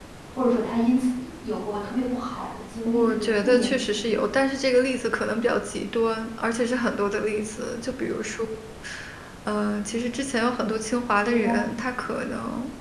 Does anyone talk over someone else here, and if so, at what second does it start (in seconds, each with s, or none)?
2.9 s